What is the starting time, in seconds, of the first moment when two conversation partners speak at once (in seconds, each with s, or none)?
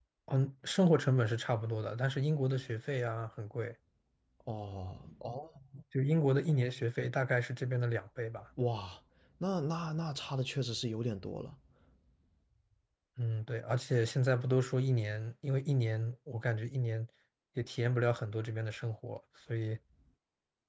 none